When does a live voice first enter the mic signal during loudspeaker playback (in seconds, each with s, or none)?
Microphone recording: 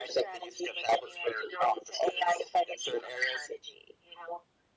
none